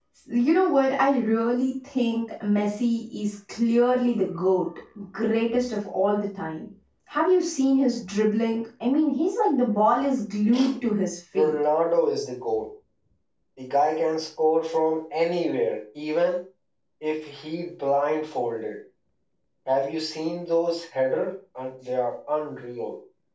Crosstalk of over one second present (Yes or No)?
No